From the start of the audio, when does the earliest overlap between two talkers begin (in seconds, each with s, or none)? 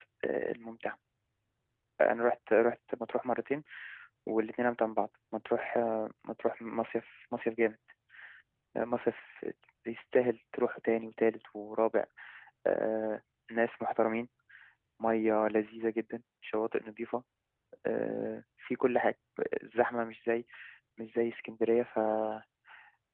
none